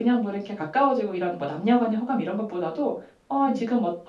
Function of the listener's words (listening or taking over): listening